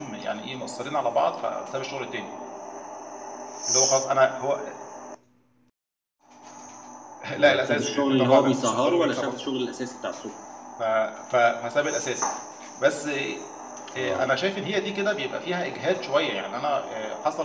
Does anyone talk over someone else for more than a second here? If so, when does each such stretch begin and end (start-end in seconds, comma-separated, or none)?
7.4-9.3